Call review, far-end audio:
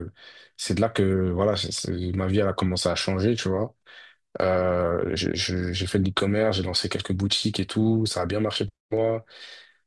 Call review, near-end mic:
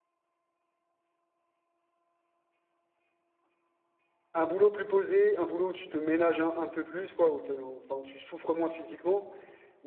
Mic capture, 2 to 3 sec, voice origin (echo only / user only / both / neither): neither